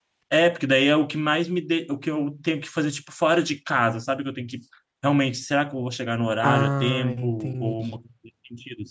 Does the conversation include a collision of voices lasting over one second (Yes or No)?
Yes